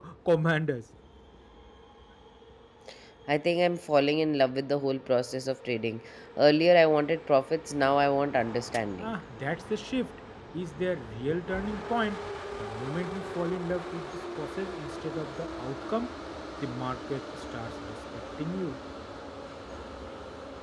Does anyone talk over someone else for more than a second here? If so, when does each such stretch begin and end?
none

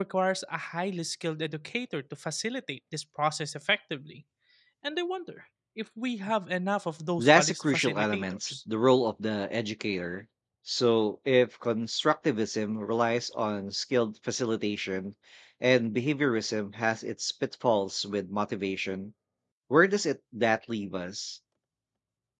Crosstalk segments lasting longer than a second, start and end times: 7.2-8.6

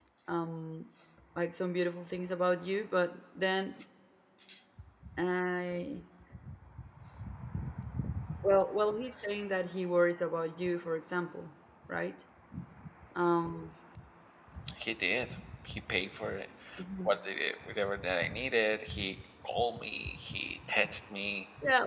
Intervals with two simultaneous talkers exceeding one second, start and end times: none

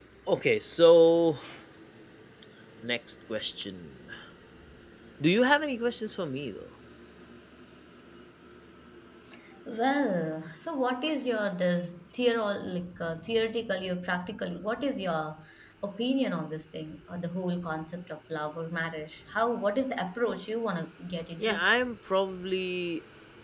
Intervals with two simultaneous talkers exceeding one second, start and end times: none

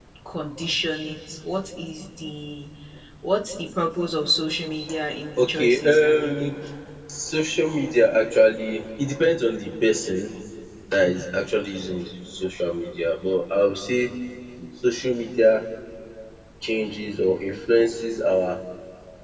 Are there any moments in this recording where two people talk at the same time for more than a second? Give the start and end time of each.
5.4-6.6

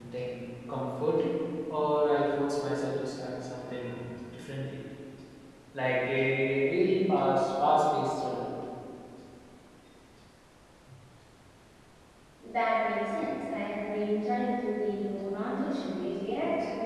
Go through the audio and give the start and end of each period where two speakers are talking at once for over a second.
none

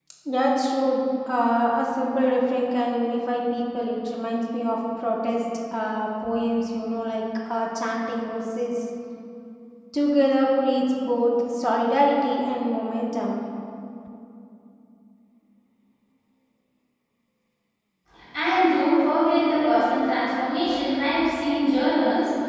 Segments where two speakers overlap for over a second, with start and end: none

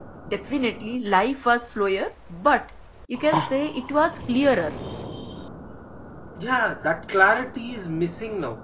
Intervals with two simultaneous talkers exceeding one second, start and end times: none

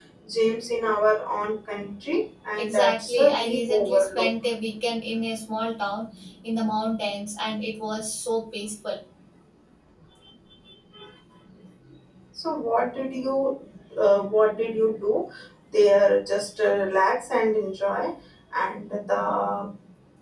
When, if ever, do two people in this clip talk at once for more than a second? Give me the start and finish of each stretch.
2.6-4.3

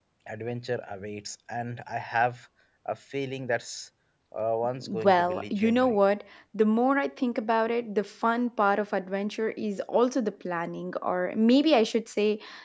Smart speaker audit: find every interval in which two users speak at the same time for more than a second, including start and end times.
4.8-6.0

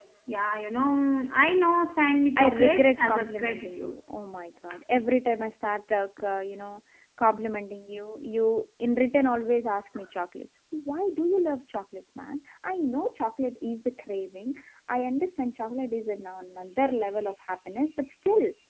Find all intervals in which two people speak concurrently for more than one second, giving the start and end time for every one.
2.4-3.9

